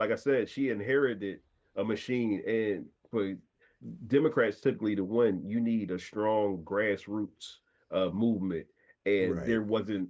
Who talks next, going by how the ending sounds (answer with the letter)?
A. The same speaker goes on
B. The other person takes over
A